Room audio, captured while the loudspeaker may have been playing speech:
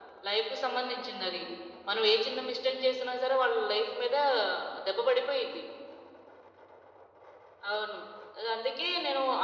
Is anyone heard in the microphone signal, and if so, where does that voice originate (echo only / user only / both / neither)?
echo only